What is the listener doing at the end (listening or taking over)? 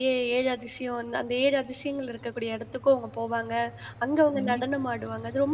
listening